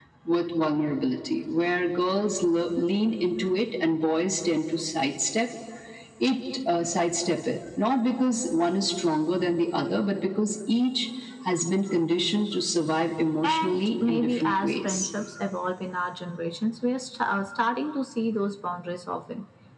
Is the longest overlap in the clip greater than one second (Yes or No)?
Yes